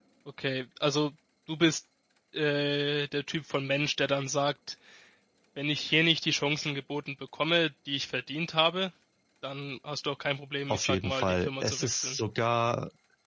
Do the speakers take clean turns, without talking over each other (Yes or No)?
No